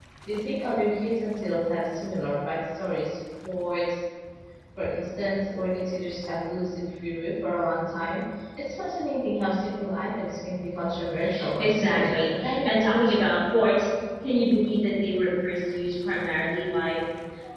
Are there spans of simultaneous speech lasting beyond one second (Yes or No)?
Yes